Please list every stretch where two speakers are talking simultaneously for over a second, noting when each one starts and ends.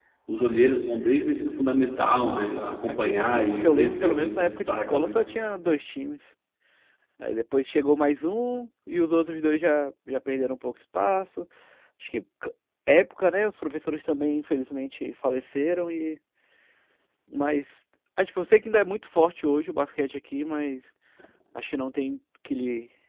2.2-5.1

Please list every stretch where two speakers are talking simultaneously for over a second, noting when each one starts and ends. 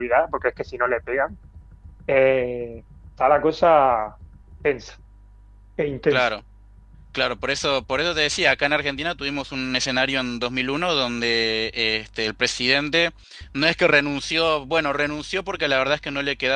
none

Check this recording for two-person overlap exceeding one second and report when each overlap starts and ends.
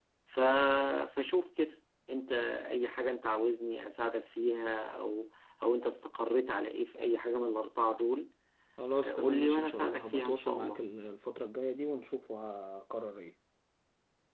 9.0-10.8

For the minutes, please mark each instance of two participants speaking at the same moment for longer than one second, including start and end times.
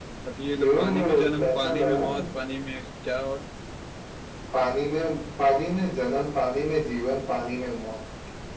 0.6-2.0

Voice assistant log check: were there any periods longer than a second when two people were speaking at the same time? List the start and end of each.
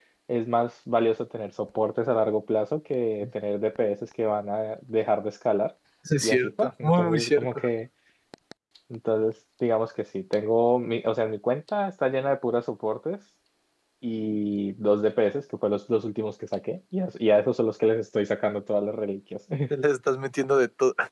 6.2-7.6

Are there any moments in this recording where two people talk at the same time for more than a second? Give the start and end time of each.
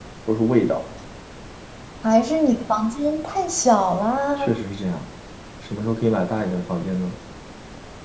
none

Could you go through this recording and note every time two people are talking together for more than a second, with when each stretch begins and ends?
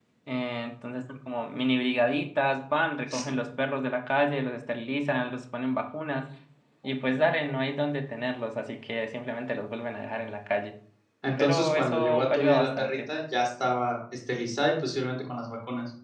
11.4-12.9

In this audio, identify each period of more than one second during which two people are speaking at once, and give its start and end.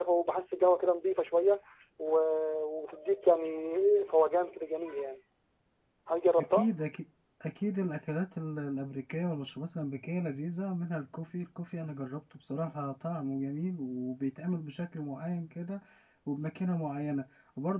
none

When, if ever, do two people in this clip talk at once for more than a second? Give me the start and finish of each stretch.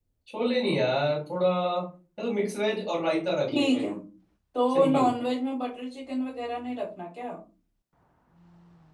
none

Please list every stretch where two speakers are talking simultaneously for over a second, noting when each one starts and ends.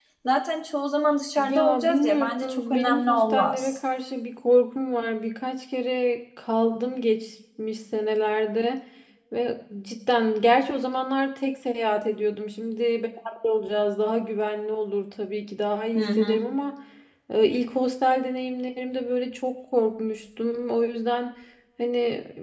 1.4-3.8

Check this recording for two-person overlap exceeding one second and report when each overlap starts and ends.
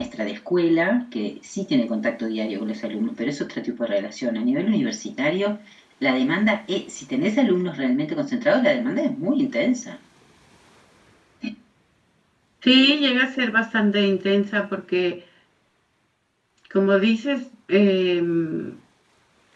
none

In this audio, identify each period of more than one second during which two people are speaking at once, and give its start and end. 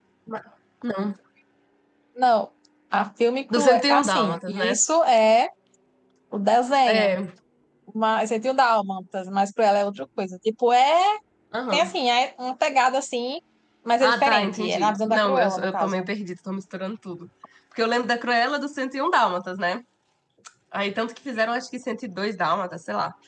3.5-4.8, 14.0-16.1

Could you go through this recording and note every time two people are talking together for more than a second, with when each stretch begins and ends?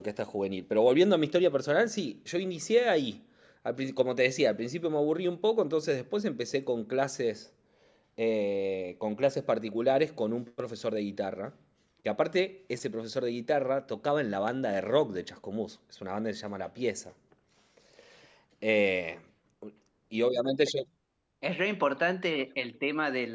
none

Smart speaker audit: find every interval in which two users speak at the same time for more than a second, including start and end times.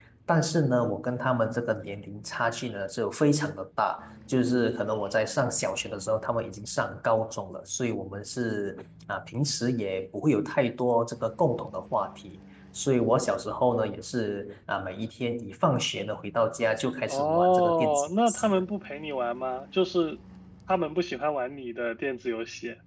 17.1-18.6

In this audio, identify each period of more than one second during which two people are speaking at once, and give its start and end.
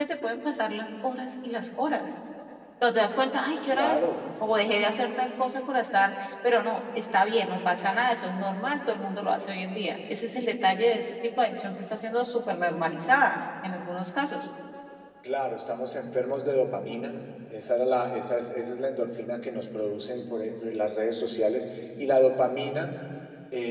none

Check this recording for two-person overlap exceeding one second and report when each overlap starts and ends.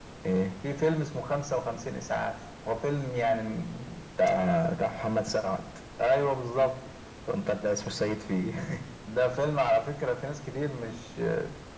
none

